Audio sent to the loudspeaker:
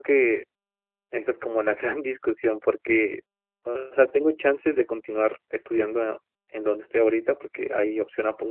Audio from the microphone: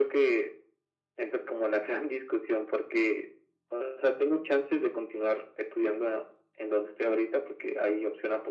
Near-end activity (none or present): none